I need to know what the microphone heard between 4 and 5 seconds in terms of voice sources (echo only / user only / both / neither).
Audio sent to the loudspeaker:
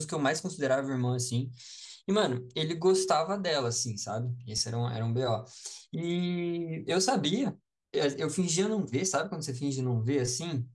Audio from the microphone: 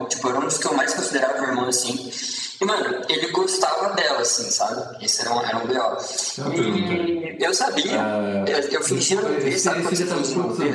echo only